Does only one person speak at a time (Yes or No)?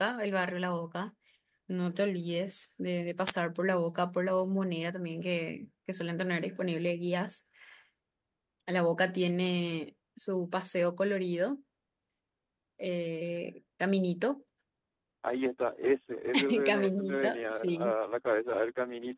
No